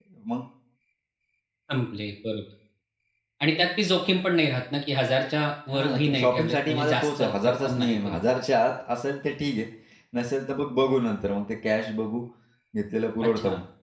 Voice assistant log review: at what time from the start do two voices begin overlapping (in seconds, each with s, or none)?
5.7 s